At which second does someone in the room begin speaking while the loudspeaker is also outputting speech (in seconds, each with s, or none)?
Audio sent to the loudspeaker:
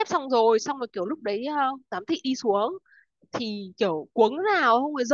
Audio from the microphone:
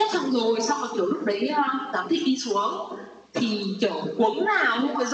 none